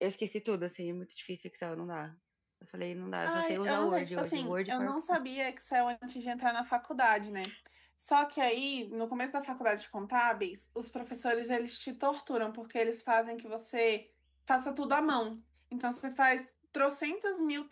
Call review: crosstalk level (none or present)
present